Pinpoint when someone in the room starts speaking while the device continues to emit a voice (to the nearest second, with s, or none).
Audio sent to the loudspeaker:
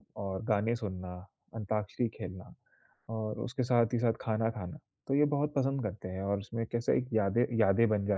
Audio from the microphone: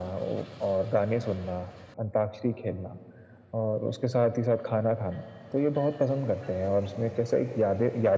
none